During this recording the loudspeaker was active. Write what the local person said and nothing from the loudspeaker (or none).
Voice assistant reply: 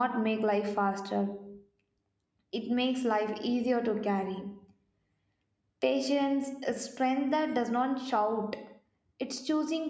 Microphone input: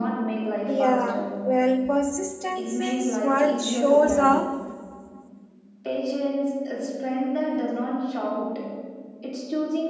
Yeah, well, persistence is what shows up